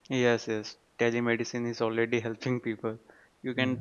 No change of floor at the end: Yes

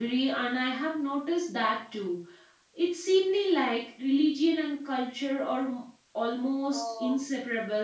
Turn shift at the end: Yes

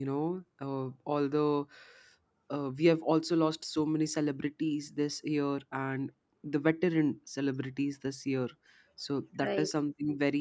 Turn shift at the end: No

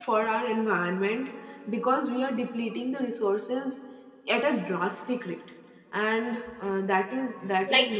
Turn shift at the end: Yes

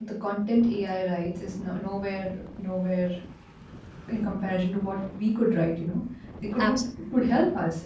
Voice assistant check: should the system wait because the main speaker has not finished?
Yes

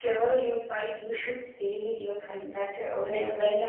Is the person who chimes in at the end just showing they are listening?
Yes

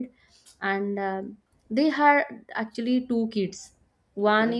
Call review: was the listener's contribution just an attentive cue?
Yes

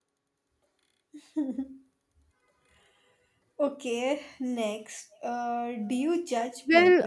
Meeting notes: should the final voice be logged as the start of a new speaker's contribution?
Yes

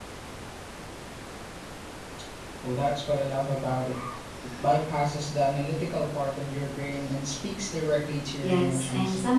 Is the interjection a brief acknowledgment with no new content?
No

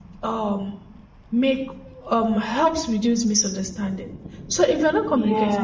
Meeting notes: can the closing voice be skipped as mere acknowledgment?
Yes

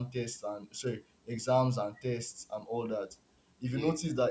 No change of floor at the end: Yes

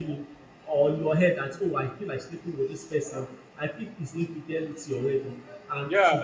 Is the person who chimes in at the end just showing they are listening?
No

